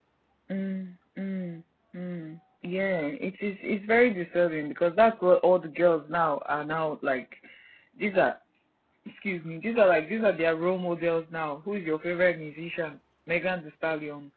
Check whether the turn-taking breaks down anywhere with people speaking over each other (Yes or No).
No